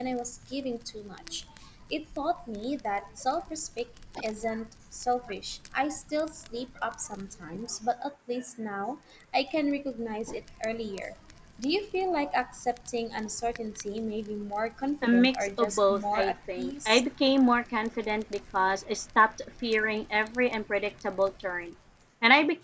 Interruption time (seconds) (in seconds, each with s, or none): 15.0 s